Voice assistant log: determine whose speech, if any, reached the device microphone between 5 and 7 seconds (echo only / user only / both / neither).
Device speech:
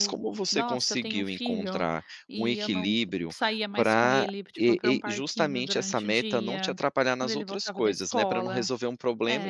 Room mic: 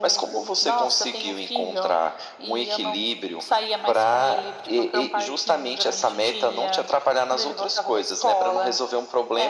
echo only